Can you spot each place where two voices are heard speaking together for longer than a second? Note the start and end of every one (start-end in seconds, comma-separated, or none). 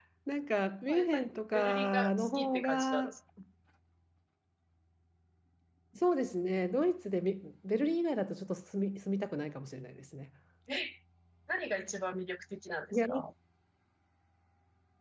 0.9-3.1